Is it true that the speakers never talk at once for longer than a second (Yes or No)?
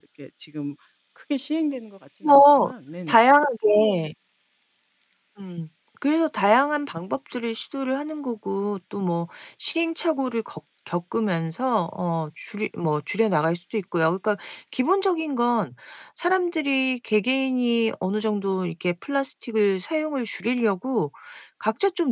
Yes